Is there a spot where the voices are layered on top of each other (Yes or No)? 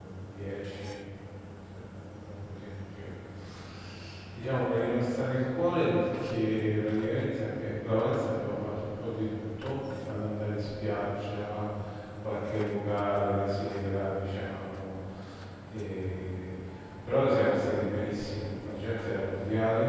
No